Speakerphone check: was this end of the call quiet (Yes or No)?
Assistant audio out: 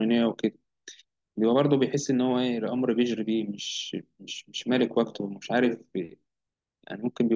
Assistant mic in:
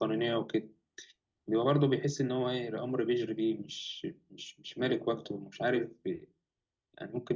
Yes